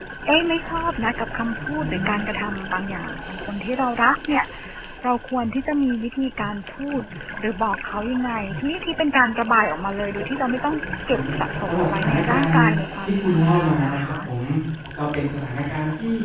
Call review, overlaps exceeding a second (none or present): present